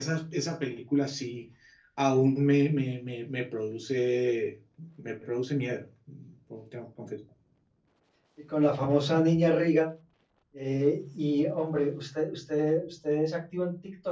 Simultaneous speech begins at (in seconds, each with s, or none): none